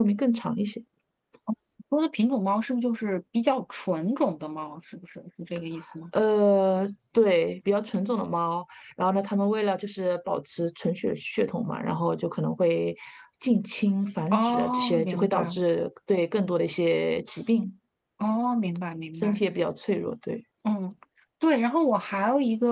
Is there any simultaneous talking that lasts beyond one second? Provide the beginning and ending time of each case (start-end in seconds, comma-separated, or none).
14.3-15.6